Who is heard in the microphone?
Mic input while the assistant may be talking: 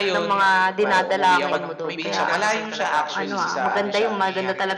both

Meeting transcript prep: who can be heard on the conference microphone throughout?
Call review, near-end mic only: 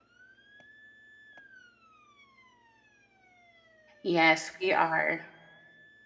user only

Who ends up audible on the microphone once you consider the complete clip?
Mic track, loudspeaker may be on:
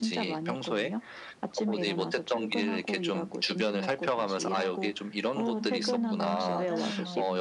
both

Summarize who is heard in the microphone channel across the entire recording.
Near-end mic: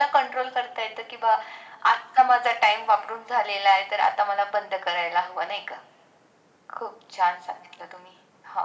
echo only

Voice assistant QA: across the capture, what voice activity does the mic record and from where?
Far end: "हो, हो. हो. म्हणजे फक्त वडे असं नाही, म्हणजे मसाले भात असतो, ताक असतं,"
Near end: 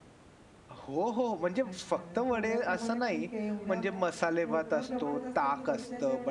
both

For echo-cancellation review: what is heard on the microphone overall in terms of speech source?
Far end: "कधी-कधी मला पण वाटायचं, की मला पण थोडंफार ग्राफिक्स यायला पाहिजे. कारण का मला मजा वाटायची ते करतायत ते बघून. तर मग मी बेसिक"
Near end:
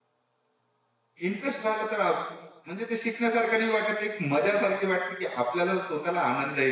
user only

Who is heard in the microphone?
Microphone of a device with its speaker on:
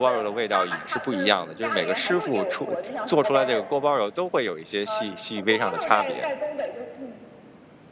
both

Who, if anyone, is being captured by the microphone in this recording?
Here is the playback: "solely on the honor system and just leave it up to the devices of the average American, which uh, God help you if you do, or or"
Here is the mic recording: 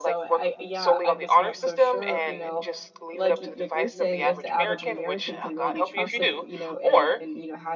both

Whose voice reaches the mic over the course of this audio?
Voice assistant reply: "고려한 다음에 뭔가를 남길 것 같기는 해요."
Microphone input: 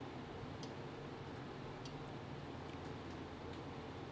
neither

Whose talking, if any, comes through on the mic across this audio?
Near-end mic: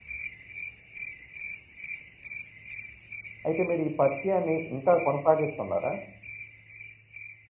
user only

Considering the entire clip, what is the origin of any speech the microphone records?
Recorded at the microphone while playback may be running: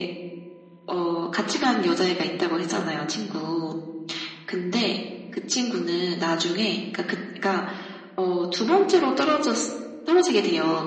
echo only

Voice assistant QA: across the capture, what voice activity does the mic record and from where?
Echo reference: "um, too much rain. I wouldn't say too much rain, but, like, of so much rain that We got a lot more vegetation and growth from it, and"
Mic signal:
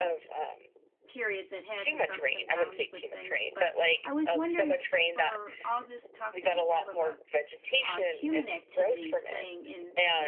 both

